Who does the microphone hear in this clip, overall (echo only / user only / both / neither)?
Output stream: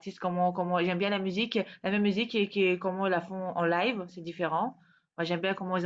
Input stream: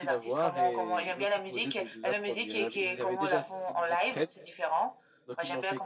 both